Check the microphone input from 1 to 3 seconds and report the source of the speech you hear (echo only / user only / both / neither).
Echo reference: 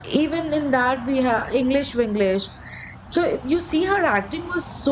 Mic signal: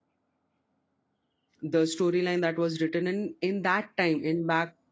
user only